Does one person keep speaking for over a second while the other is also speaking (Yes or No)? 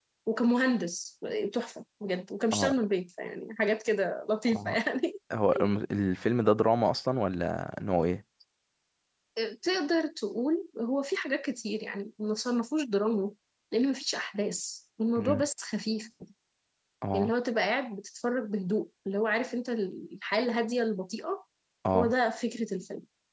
No